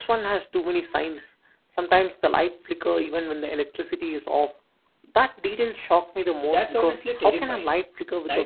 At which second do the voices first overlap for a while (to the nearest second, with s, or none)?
6 s